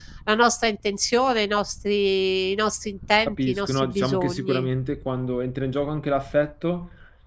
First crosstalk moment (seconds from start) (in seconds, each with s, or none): 3.2 s